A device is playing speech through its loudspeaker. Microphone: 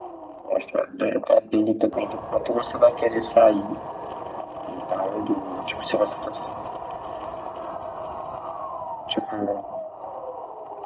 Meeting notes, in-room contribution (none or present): none